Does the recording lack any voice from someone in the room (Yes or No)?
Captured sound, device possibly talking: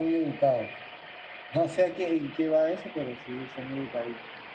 Yes